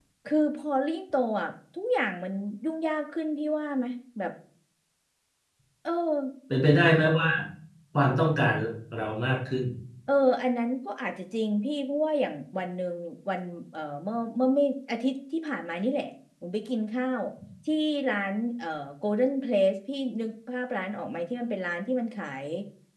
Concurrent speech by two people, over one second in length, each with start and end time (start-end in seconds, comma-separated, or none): none